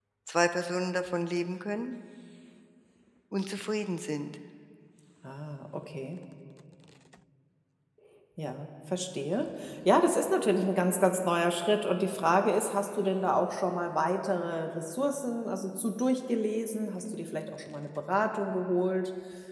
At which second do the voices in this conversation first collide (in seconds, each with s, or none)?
none